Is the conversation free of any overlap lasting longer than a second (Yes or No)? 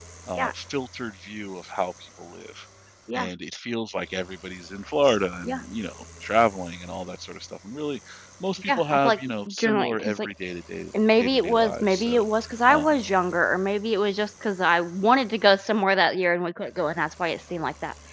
No